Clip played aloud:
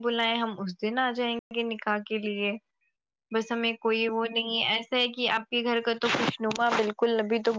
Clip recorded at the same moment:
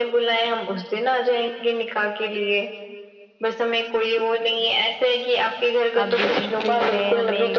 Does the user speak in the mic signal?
Yes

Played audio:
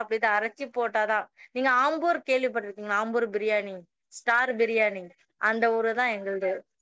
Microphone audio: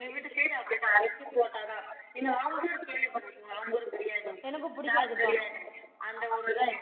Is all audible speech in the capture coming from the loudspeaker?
No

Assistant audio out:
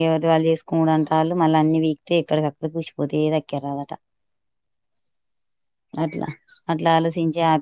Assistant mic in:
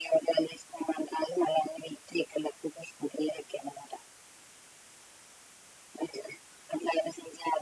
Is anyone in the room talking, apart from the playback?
No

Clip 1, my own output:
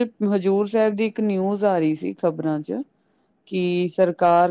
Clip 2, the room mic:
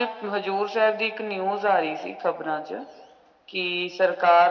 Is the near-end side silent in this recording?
Yes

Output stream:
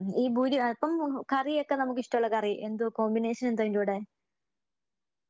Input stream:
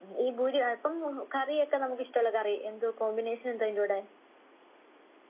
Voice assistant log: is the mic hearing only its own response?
Yes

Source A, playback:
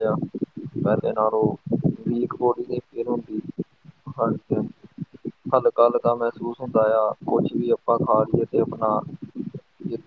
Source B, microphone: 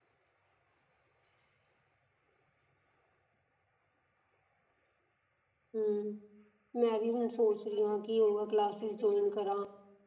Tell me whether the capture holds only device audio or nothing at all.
No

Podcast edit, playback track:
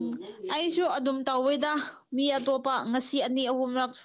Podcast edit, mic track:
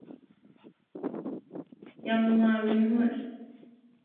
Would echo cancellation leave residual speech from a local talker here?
Yes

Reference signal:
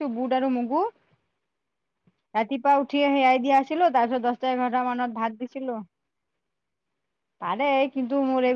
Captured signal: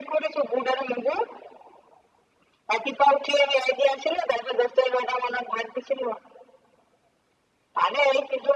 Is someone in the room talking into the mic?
No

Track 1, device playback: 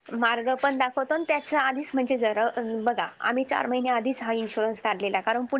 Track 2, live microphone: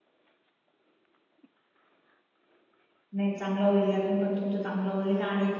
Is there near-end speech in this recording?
Yes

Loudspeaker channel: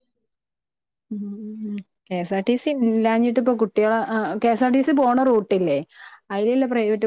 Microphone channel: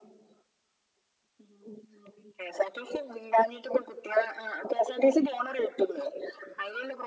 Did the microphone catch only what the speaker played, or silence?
Yes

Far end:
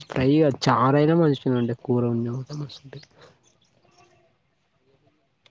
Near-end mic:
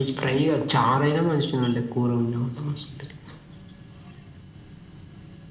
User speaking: No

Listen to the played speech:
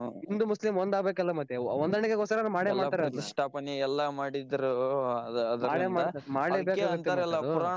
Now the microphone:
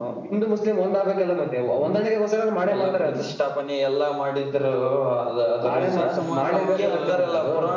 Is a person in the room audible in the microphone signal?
Yes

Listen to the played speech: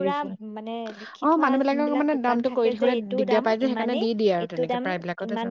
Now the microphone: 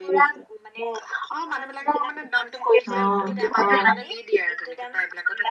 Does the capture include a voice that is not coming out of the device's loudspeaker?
Yes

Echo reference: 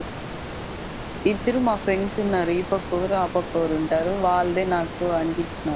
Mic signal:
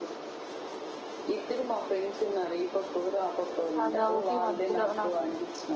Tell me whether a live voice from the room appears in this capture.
Yes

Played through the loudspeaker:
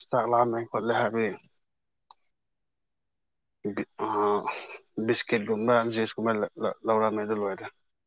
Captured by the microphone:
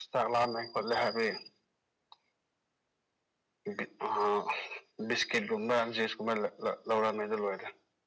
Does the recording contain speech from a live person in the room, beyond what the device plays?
No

